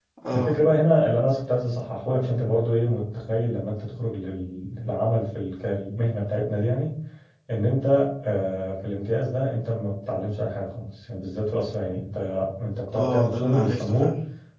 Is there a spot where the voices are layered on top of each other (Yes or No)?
Yes